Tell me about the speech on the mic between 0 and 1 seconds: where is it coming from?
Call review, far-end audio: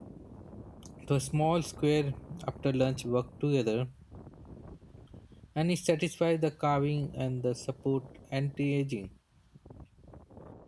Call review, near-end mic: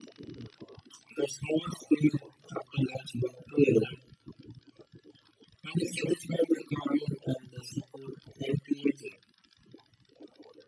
neither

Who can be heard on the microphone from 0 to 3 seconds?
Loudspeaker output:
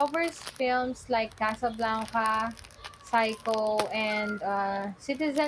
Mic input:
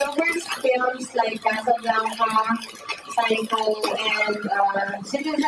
echo only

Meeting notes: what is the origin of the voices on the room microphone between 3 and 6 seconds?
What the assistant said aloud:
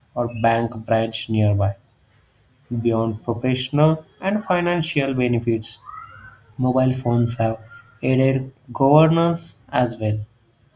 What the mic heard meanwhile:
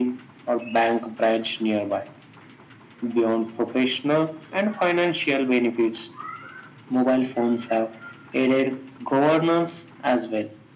echo only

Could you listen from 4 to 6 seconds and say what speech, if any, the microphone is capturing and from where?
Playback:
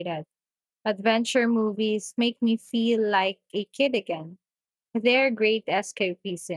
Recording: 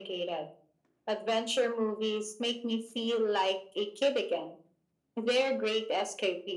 echo only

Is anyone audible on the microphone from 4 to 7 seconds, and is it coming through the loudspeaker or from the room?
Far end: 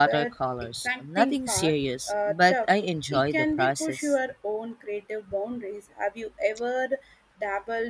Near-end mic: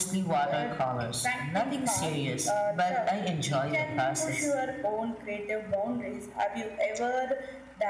echo only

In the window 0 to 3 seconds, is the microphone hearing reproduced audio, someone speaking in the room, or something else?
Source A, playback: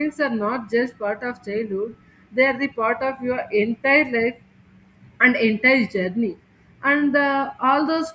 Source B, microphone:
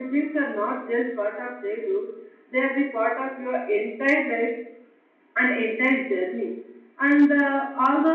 echo only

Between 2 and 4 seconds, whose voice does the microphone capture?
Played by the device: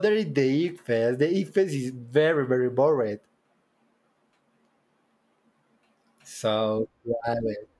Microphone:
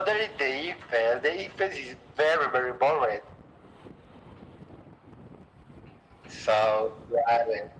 echo only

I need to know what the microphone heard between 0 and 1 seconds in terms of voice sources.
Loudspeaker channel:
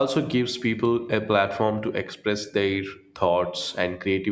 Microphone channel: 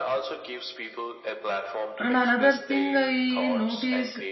echo only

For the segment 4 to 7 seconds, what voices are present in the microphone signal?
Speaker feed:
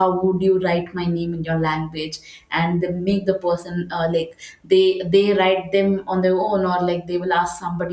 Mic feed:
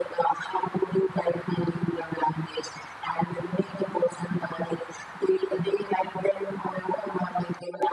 echo only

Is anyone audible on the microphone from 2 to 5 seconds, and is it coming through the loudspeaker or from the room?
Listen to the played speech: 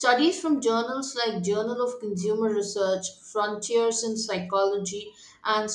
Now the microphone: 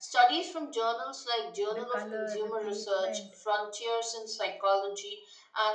both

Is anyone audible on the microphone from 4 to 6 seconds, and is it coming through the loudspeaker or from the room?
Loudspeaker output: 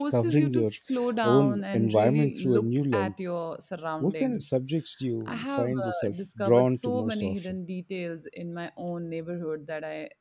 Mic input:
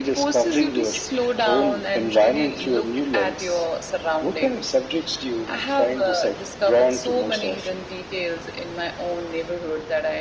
echo only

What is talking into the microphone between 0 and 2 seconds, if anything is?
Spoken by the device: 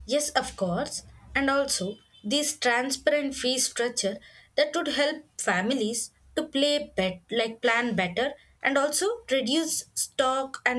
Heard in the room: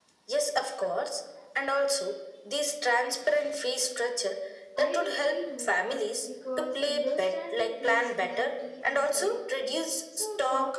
echo only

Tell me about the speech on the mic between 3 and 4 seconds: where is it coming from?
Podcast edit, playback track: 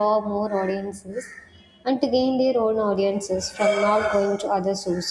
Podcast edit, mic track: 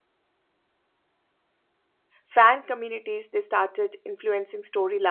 user only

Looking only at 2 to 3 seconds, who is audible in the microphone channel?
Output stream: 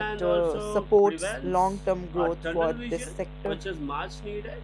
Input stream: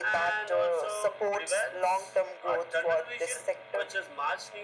echo only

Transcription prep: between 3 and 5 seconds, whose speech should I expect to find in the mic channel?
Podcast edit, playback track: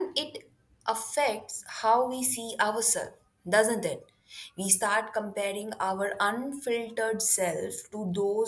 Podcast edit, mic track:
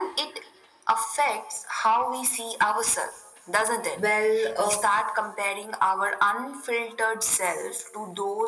both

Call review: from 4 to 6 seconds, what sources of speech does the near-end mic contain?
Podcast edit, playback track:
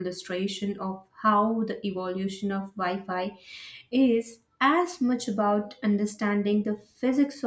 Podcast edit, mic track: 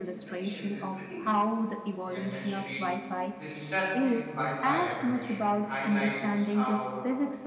both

